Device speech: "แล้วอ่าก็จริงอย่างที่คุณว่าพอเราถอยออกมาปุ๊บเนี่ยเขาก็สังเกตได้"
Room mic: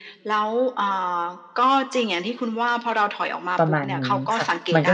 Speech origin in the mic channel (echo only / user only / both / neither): both